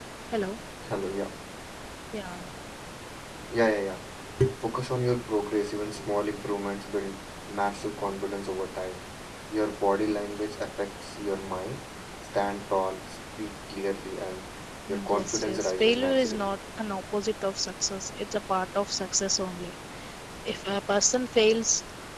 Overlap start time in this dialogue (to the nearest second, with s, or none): 15 s